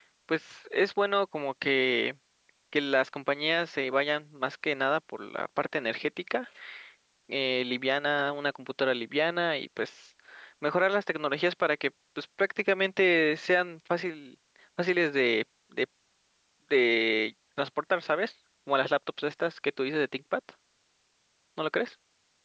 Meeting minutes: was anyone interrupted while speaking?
No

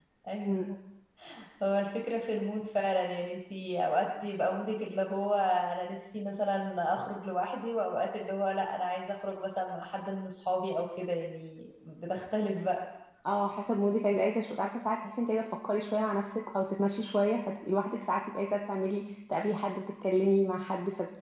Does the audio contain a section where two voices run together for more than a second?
No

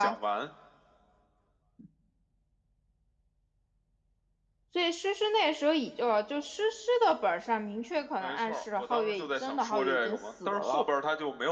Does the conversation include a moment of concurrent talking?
Yes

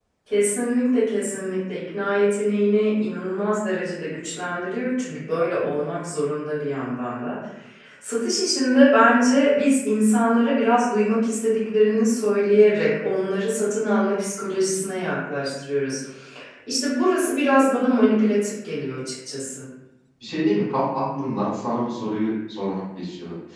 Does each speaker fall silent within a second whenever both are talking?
Yes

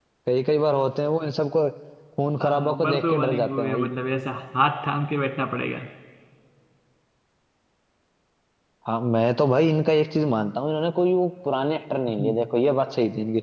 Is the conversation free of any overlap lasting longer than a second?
No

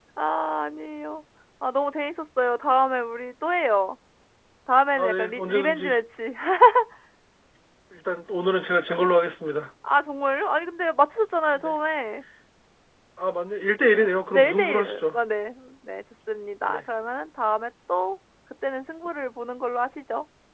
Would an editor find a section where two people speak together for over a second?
Yes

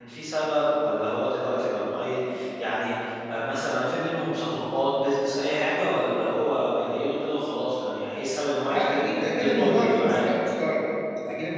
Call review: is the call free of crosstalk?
No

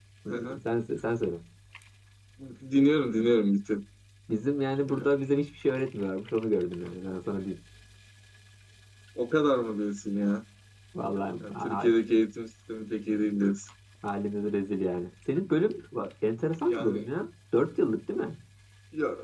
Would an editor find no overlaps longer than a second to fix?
Yes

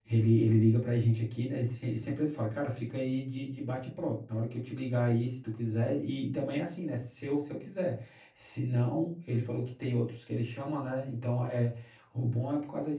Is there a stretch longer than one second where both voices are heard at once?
No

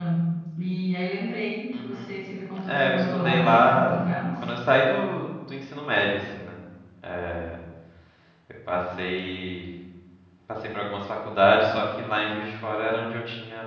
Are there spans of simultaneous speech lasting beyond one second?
Yes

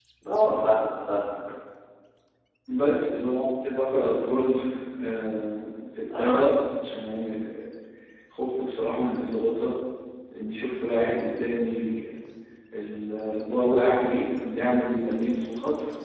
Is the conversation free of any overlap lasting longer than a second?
Yes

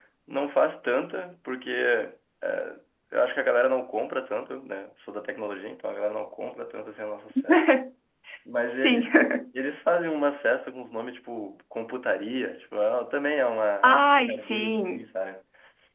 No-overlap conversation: No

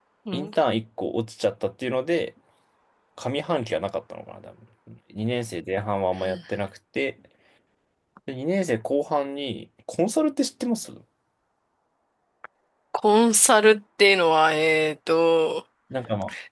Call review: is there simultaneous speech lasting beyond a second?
No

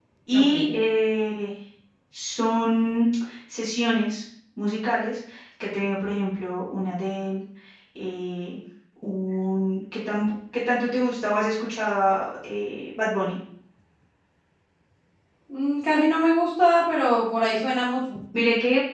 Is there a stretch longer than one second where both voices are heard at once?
No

